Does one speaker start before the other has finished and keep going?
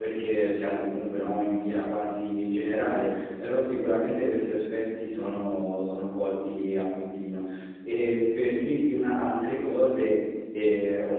No

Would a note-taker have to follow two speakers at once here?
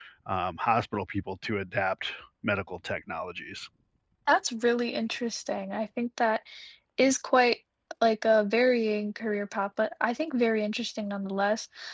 No

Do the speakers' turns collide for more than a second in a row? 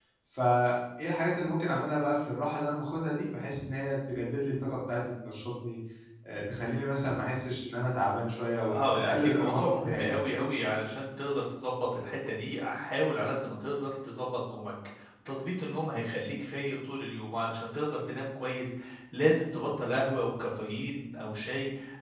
Yes, from 8.6 s

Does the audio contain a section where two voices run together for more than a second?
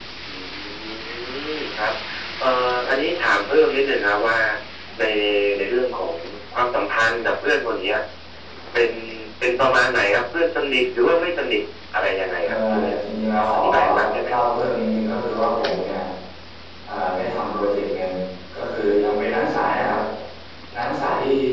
No

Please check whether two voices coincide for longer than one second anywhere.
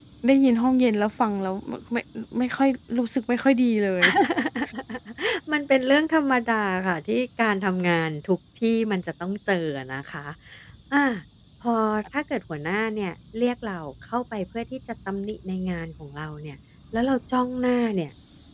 No

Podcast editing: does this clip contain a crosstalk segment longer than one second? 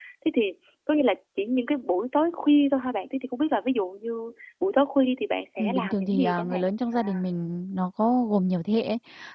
Yes, from 5.6 s

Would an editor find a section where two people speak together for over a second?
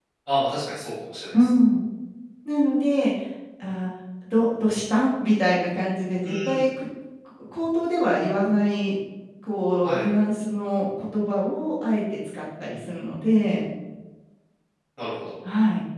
No

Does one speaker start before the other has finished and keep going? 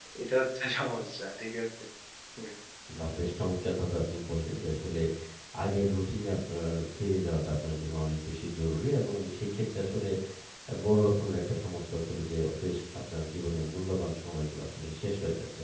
No

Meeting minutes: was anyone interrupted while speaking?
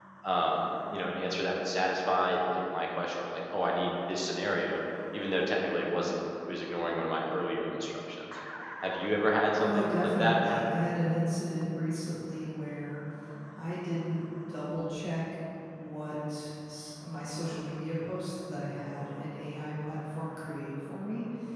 Yes, from 9.6 s

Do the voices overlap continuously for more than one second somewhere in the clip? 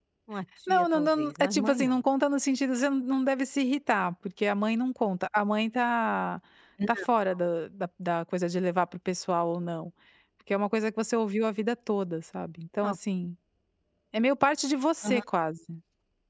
Yes, from 0.7 s

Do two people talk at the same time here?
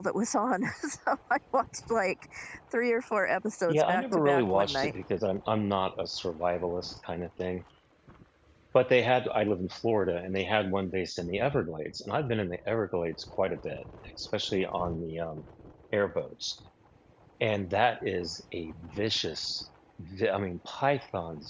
Yes, from 3.7 s

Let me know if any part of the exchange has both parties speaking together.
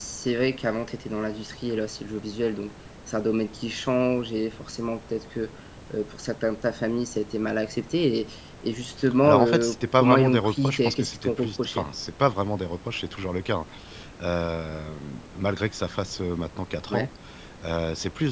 Yes, from 9.2 s

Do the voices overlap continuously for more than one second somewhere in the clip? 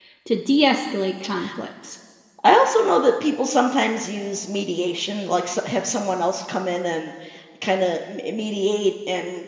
No

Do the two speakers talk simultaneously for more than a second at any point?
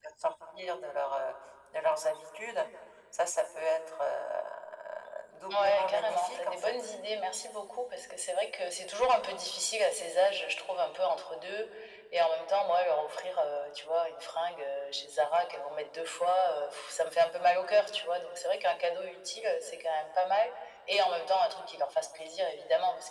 Yes, from 5.5 s

